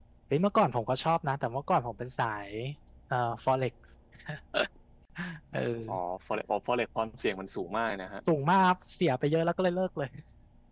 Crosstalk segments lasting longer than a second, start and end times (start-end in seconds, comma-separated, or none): none